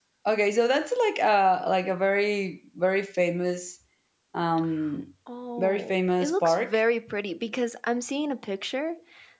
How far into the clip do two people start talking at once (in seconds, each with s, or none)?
5.6 s